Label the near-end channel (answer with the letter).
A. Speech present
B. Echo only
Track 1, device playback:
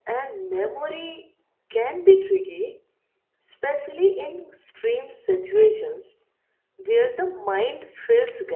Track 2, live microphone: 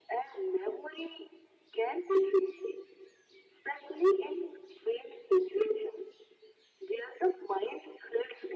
B